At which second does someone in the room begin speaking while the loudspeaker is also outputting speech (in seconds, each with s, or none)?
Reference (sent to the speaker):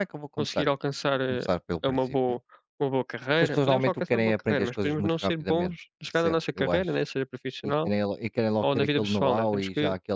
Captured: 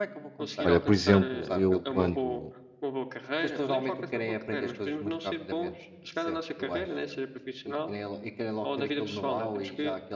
0.6 s